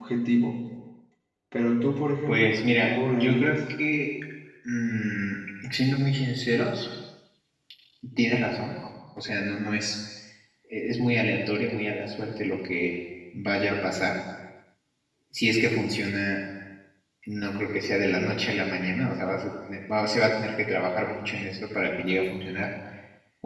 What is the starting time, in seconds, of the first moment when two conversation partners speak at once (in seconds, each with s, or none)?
2.3 s